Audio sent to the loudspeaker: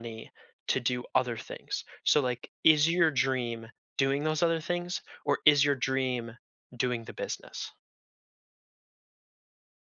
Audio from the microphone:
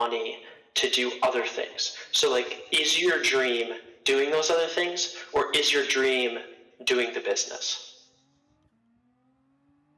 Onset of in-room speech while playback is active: none

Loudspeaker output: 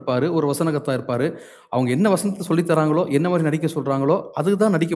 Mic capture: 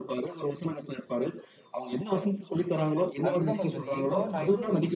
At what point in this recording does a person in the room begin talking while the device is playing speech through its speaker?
3.3 s

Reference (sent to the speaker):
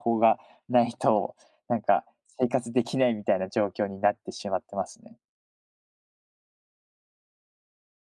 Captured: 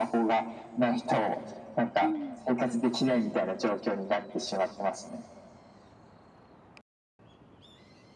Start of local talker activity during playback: 2.0 s

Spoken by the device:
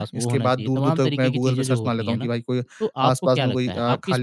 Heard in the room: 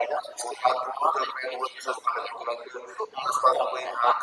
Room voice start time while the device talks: none

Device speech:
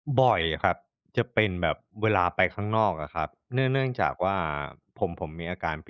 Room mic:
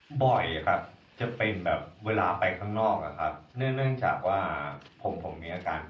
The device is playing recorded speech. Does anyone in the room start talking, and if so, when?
none

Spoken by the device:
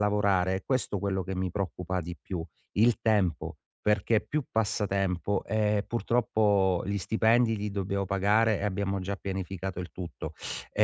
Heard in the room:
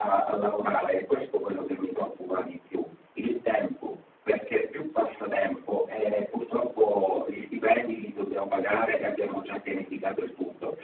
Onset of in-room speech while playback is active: none

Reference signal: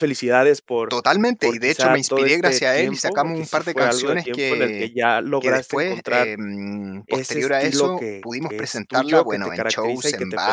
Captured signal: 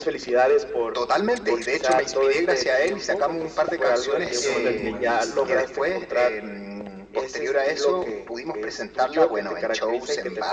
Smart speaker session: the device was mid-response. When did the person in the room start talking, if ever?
4.1 s

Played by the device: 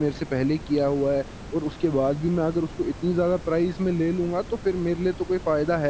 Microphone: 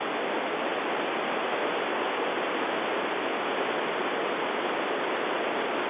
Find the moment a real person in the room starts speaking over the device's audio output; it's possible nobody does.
none

